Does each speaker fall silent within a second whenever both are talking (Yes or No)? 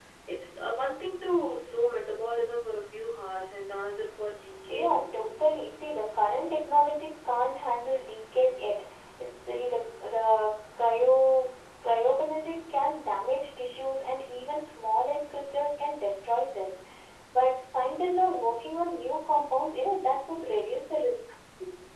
Yes